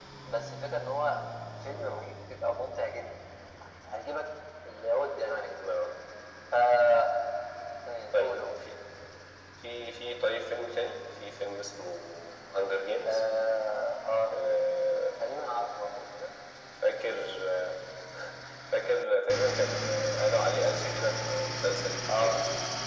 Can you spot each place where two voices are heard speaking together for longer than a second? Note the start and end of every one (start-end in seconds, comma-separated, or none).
none